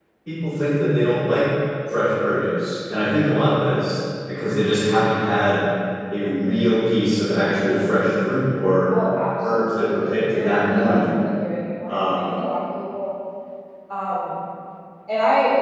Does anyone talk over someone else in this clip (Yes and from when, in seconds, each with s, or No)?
Yes, from 9.5 s